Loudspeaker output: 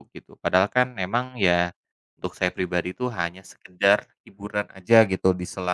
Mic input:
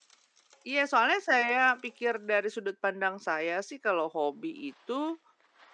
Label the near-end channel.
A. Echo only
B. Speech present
B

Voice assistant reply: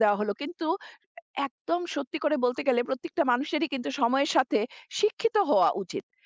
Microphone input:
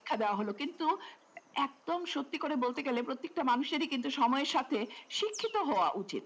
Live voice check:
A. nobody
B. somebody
A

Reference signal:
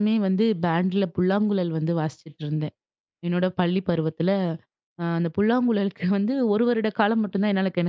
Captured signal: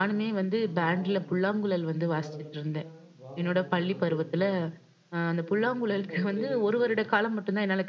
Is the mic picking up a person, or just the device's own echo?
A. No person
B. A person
B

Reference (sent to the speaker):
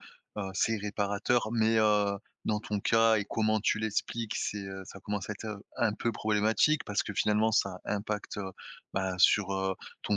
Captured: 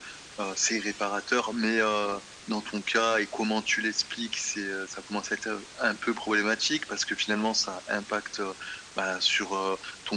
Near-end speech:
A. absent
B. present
A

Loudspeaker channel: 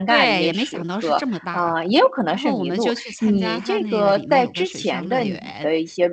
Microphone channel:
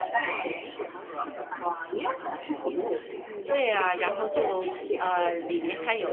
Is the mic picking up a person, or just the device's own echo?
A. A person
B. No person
A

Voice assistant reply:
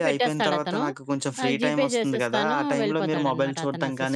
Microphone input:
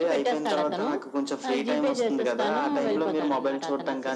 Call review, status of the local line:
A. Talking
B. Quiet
B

